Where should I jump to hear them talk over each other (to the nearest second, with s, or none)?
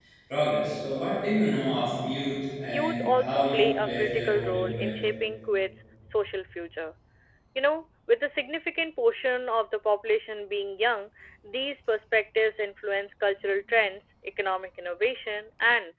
3 s